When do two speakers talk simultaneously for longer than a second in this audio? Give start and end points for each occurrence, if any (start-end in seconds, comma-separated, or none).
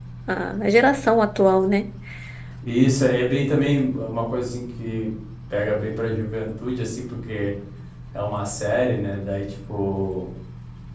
none